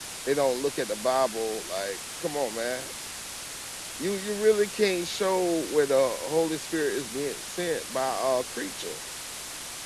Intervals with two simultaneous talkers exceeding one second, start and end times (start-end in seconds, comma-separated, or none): none